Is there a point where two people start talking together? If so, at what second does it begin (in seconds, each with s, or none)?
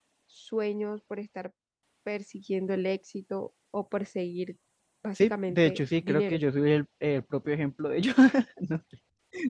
5.2 s